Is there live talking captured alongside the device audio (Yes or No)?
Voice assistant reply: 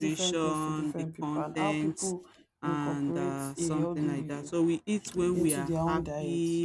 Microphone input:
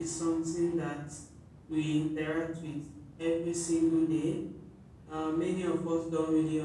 Yes